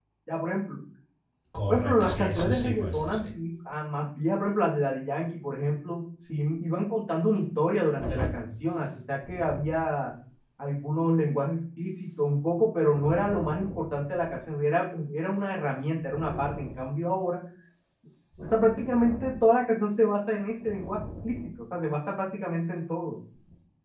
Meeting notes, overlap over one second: present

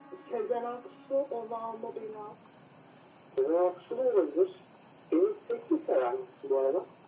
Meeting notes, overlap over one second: none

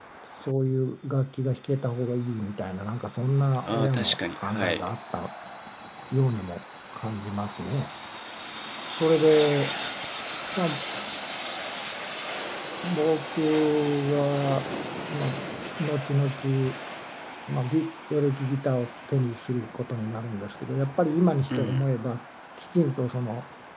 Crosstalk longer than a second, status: present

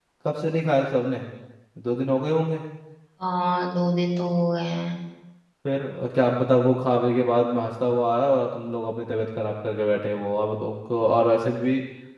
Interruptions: none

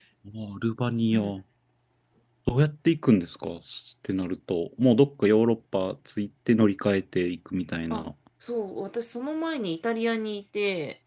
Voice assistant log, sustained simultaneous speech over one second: none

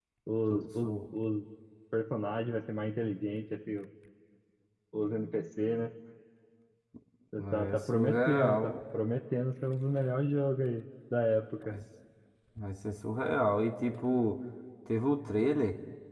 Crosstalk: present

